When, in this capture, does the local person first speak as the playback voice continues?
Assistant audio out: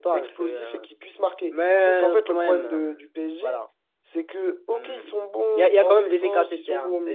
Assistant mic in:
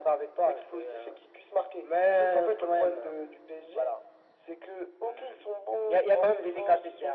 none

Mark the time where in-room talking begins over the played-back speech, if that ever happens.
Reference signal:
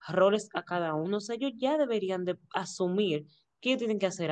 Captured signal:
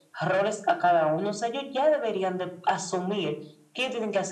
none

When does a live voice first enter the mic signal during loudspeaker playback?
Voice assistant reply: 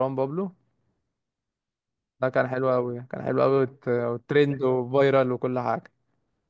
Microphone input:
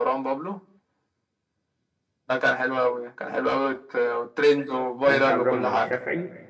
5.0 s

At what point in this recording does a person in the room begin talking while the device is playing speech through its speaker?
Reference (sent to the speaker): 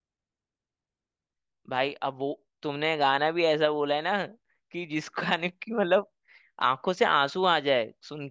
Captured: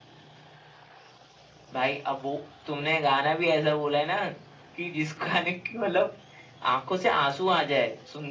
none

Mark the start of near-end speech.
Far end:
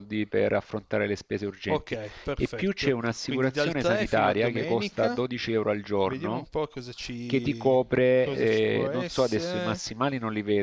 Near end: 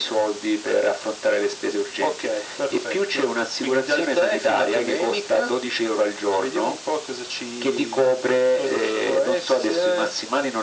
none

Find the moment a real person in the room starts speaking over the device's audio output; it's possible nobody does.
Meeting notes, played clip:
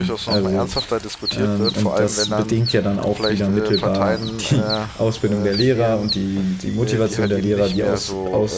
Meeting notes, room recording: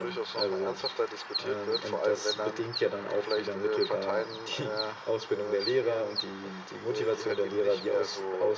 none

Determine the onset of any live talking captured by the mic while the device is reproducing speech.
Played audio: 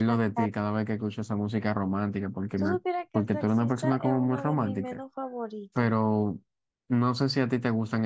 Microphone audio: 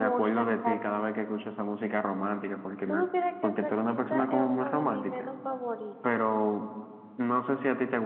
none

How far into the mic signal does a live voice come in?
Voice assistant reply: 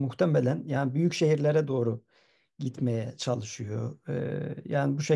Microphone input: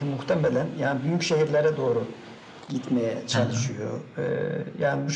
3.3 s

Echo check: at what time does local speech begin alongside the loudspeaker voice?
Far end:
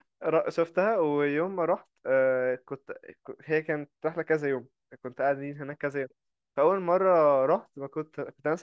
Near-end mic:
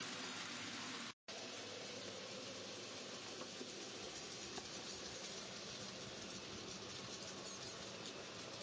none

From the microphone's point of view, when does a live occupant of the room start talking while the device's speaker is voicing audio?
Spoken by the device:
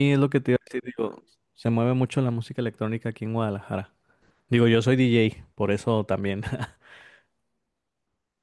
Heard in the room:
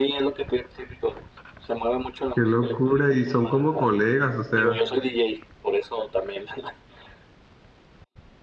2.4 s

